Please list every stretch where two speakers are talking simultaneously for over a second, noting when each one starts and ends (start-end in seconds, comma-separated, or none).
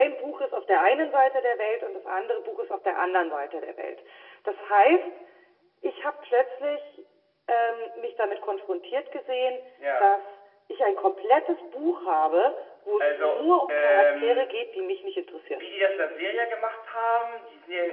13.0-14.6